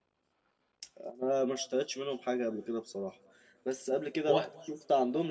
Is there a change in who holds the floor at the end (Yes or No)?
No